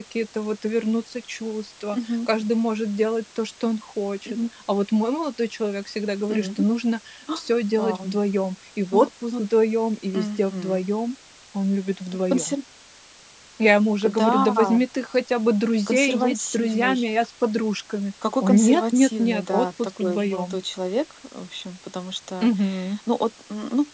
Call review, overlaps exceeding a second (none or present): present